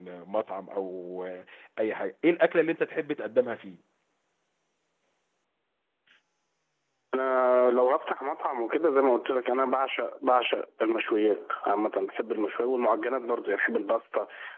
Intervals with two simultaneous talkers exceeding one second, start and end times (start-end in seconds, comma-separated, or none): none